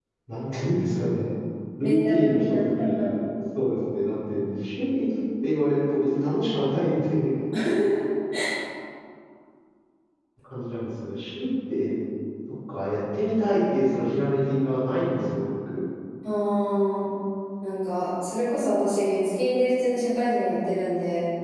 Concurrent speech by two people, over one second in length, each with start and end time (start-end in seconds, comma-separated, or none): 1.8-3.1